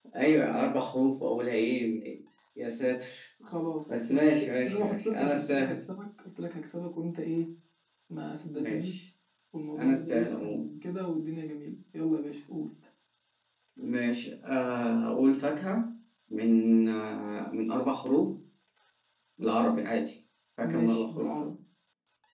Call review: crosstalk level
present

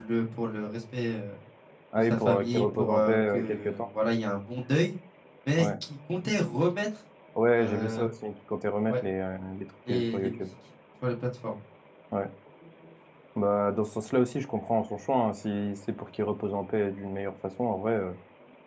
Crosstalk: present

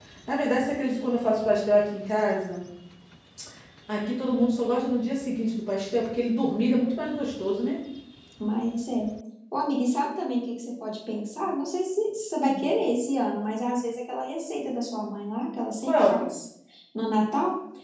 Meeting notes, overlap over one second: none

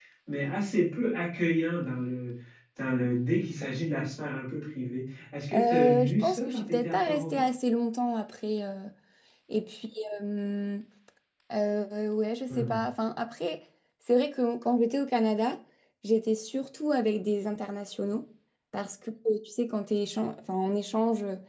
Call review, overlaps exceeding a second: present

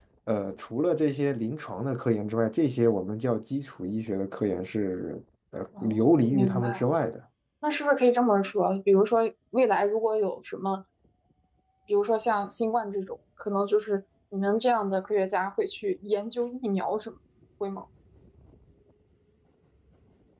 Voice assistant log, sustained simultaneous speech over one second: present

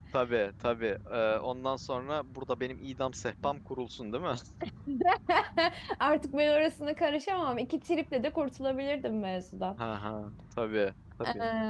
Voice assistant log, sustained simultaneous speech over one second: none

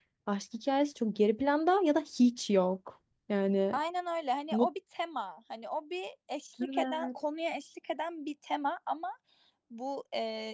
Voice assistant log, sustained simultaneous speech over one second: none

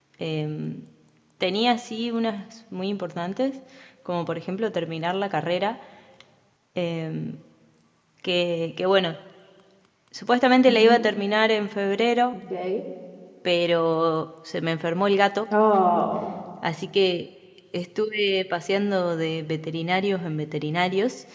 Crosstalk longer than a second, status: none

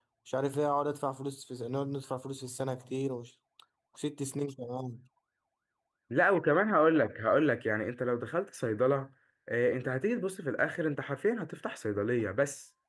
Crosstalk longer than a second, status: none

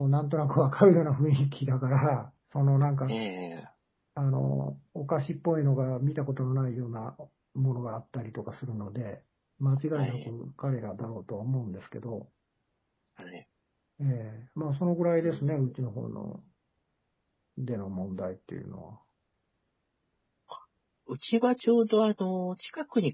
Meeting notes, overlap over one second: none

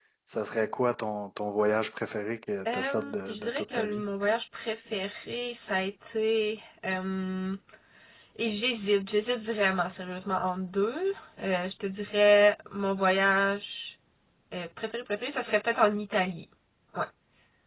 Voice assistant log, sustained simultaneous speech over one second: present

